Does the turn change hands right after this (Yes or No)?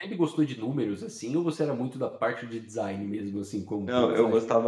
Yes